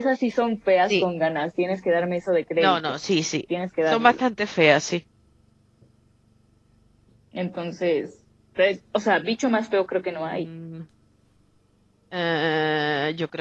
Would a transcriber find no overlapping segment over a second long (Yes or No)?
Yes